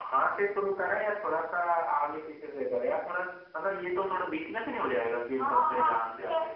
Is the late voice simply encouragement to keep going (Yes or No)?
No